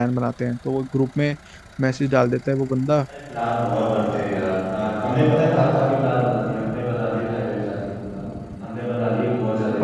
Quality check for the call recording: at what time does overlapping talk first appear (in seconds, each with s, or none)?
none